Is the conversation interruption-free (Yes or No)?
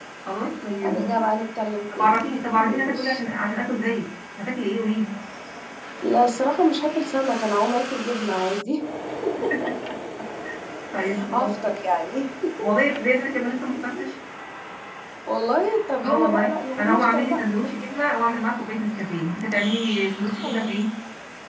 No